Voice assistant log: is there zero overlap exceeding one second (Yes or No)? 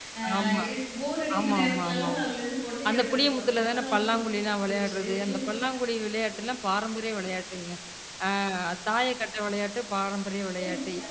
No